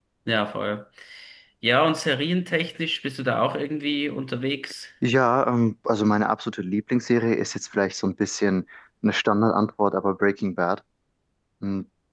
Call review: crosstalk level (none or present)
none